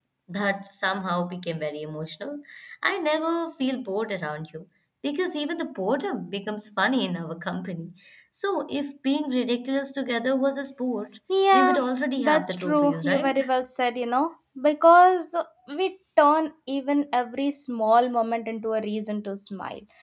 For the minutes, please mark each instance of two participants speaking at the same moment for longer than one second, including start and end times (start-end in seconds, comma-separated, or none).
12.2-13.4